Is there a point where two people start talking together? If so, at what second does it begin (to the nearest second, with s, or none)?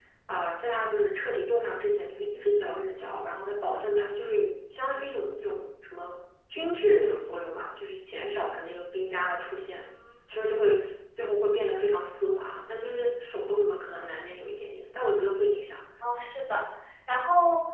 none